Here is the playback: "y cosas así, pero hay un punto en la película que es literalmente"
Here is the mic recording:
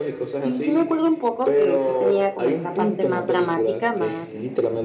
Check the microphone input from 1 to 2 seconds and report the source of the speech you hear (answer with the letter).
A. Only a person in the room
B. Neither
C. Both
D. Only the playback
C